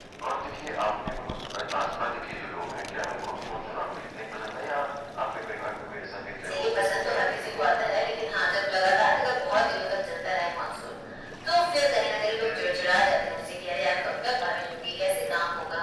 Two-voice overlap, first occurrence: 6 s

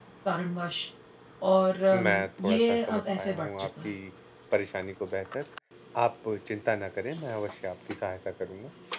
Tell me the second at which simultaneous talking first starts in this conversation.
2 s

